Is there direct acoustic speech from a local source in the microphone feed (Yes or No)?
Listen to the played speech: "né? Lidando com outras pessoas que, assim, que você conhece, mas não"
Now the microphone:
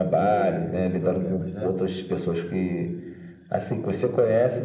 Yes